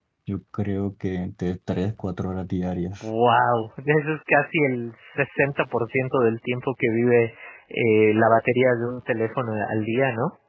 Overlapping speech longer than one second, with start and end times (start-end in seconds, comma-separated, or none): none